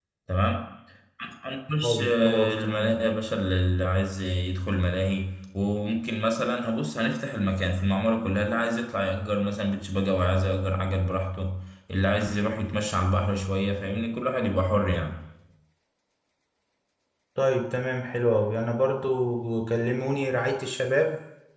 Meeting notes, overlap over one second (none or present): present